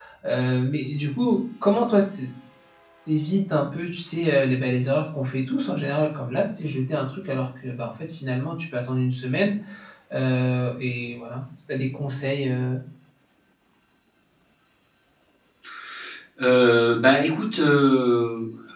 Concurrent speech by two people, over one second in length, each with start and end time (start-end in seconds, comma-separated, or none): none